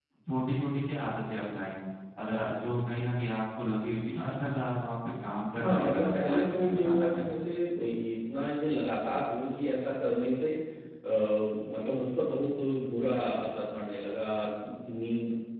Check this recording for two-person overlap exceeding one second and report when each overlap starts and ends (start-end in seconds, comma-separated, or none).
5.5-7.3